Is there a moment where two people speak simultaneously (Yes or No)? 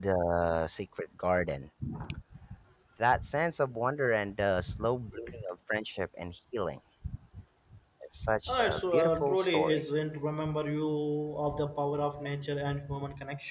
Yes